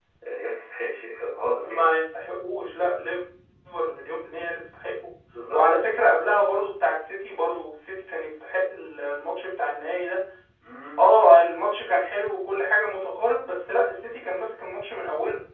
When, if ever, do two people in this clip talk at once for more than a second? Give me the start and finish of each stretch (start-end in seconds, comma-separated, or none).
none